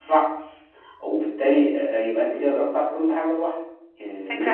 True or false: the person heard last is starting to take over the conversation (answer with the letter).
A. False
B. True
B